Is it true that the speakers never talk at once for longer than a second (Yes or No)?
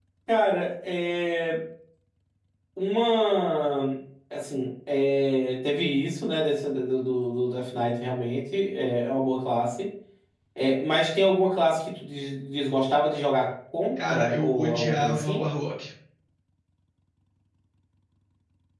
No